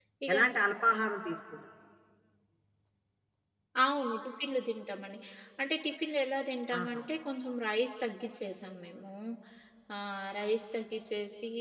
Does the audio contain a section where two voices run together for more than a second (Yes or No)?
No